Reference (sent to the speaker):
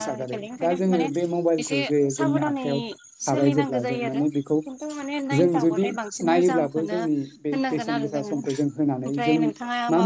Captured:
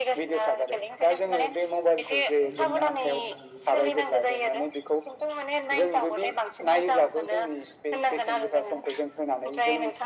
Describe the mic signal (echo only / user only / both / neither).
both